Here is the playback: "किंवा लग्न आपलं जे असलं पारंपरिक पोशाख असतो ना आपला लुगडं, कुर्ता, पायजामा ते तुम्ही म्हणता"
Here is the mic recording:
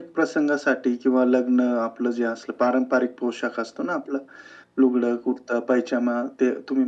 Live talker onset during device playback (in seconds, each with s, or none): none